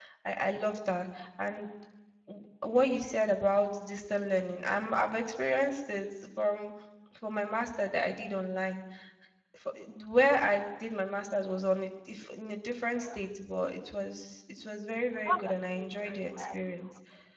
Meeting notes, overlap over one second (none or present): present